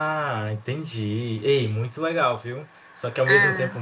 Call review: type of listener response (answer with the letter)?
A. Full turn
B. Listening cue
B